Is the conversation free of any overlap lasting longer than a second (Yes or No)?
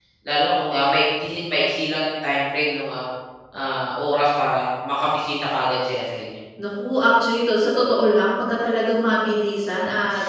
Yes